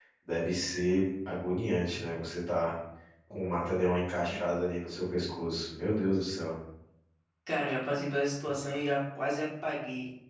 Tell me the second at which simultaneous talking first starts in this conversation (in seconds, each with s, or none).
none